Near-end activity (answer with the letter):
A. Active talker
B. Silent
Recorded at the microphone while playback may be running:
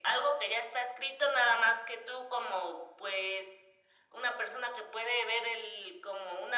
B